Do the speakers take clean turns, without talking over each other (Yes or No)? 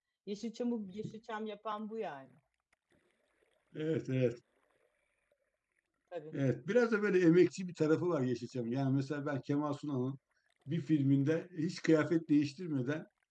Yes